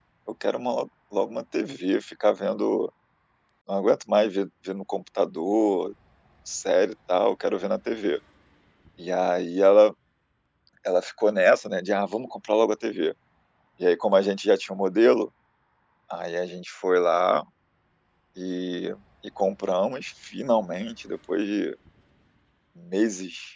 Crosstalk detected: No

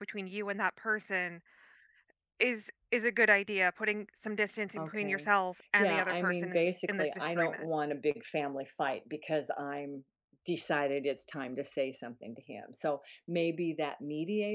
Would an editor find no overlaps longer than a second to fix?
No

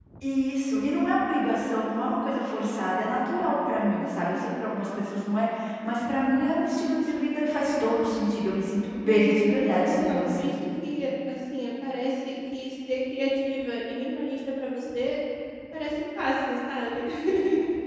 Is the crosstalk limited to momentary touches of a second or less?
No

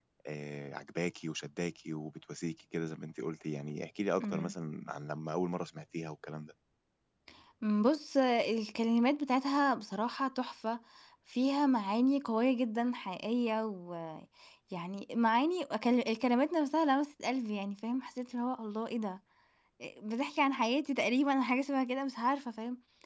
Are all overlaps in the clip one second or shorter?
Yes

